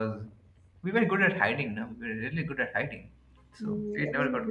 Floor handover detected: Yes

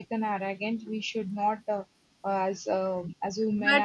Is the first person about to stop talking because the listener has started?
Yes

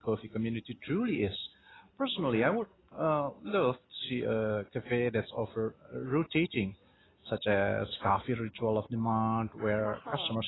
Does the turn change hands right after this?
No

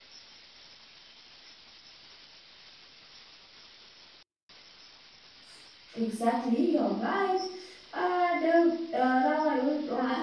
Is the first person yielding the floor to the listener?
Yes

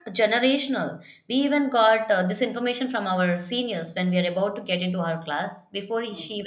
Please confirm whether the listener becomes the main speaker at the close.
No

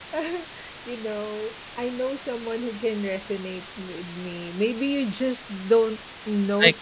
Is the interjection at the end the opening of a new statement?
No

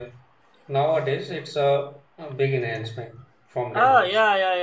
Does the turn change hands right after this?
Yes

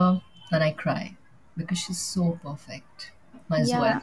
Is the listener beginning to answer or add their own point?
Yes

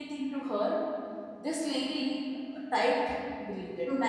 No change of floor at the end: Yes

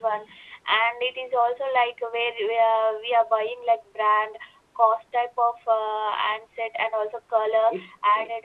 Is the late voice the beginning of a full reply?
No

